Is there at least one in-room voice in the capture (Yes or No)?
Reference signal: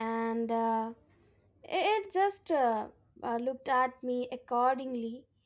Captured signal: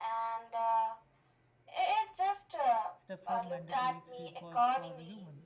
Yes